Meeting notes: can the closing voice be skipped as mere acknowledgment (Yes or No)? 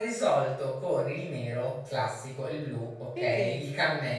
Yes